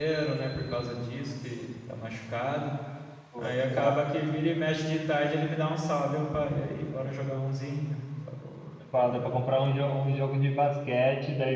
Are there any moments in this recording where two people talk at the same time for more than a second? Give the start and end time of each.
none

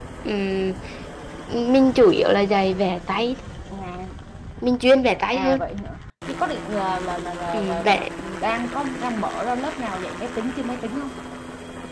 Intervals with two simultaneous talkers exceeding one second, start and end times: none

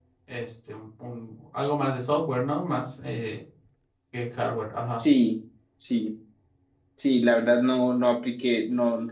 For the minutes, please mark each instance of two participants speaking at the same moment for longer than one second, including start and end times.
none

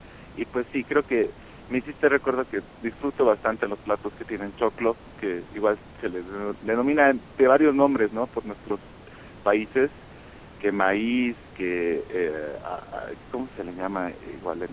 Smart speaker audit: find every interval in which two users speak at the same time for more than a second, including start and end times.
none

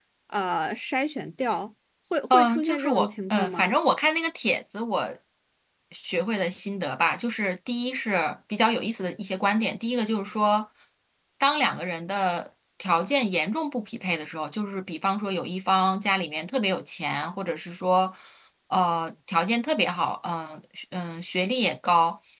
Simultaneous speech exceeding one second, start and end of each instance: 2.3-3.7

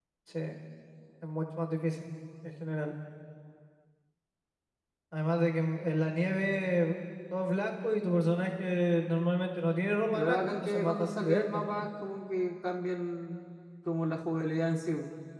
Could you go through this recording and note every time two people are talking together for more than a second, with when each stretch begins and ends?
10.1-11.8

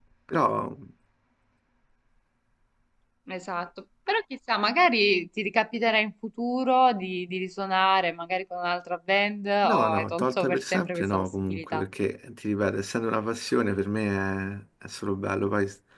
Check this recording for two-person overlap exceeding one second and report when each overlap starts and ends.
9.6-11.8

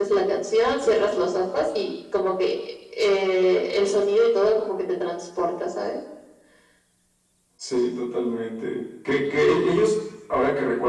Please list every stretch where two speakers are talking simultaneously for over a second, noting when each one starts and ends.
none

